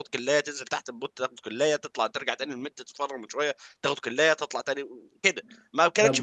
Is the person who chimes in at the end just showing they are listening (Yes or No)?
Yes